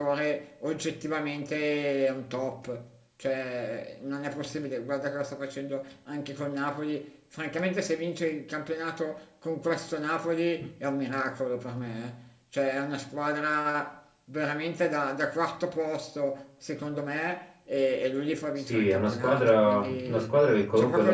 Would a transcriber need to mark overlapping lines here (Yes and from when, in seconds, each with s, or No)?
Yes, from 18.7 s